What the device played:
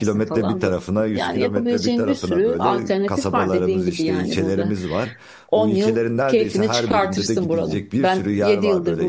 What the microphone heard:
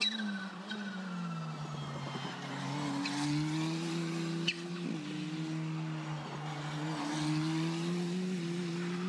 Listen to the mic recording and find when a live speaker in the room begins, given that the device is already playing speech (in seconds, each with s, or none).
none